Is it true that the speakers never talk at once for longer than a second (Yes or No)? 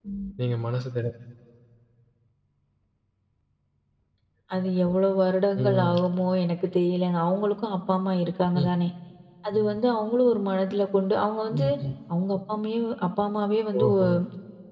Yes